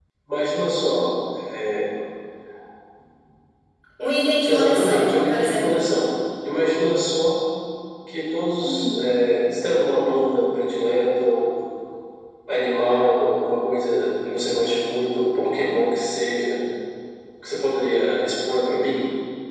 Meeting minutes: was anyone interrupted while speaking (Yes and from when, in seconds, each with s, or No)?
Yes, from 4.5 s